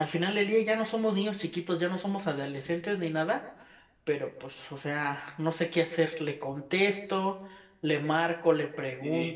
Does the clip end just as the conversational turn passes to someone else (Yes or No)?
Yes